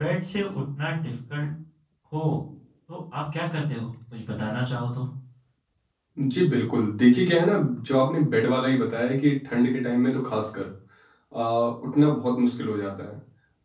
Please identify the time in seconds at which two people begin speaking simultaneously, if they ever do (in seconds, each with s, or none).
none